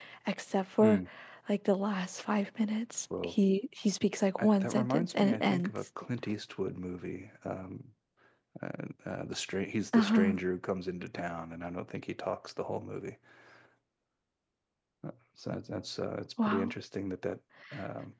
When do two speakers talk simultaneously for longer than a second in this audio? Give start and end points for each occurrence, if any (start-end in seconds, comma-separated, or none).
4.4-5.7